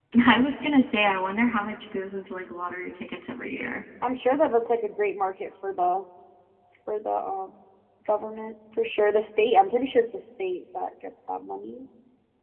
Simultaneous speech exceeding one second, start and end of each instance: none

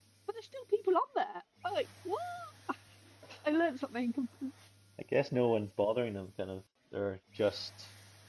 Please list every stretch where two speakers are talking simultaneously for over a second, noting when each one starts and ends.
none

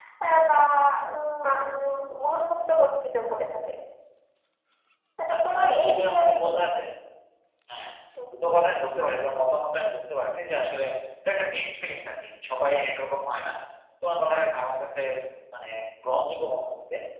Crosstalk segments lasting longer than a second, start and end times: 5.3-6.6

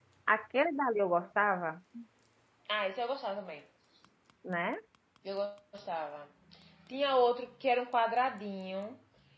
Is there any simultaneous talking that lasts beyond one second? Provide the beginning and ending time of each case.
none

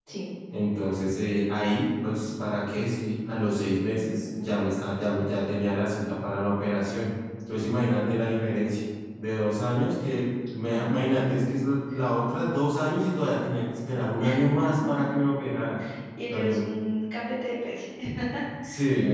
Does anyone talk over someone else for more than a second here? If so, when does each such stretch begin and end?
none

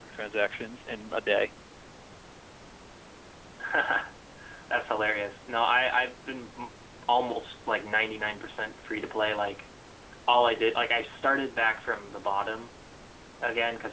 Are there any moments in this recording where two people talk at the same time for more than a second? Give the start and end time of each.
none

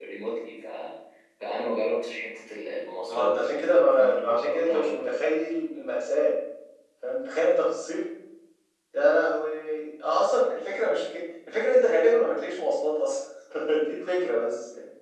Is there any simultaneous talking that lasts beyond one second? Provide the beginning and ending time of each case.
3.0-5.1

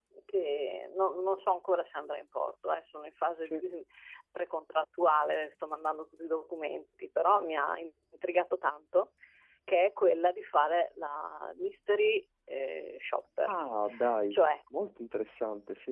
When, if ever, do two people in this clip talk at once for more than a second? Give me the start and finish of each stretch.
none

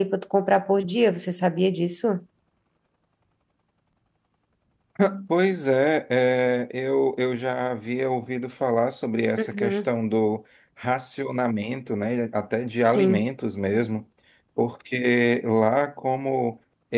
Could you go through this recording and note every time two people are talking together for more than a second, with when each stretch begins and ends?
none

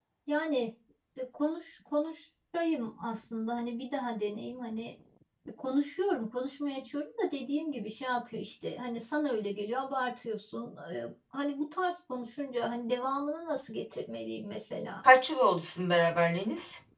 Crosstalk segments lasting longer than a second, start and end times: none

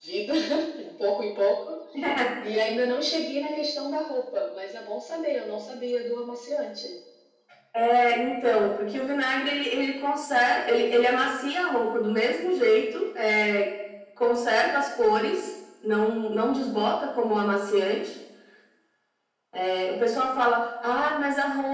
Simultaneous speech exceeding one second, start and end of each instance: none

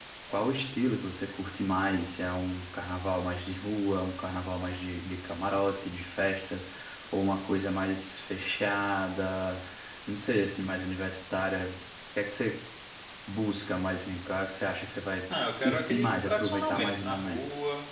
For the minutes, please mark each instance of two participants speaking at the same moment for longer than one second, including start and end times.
15.6-17.4

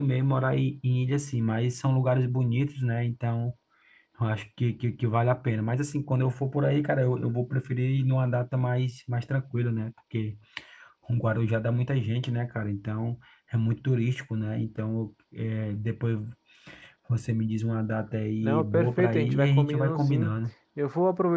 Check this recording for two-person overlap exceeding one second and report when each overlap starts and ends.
18.4-20.3

